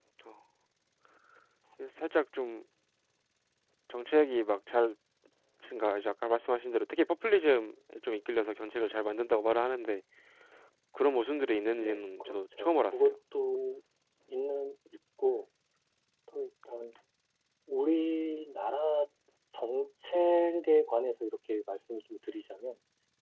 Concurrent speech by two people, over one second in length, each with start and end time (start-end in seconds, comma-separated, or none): 11.8-13.2